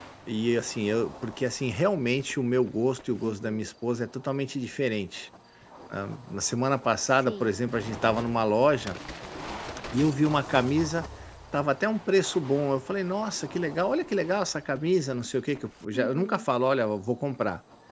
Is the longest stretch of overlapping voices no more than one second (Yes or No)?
Yes